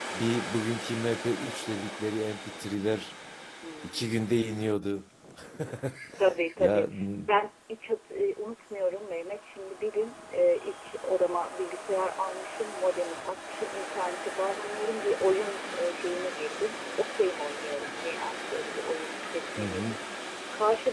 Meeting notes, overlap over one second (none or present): none